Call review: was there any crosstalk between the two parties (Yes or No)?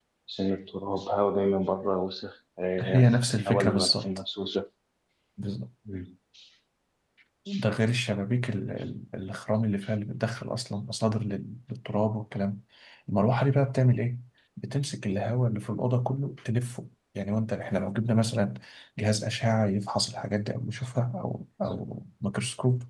Yes